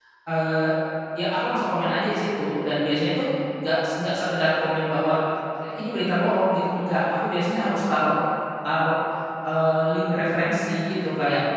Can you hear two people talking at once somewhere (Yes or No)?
No